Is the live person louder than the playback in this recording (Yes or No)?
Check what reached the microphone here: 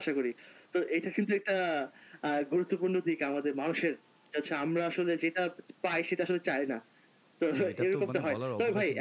No